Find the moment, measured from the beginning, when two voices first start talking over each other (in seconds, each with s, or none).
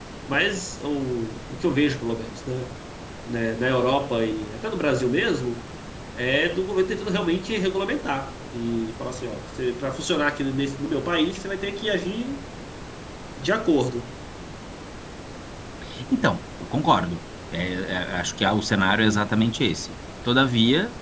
none